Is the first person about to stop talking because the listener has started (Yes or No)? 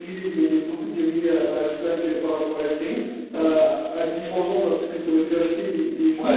Yes